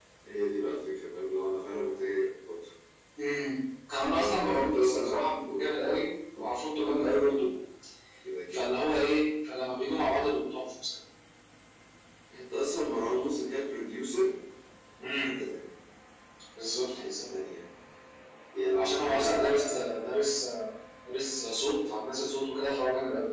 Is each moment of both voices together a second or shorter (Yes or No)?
No